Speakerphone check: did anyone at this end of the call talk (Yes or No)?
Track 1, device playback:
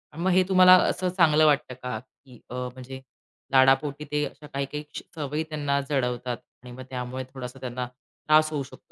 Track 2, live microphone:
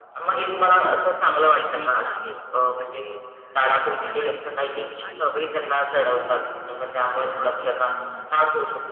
Yes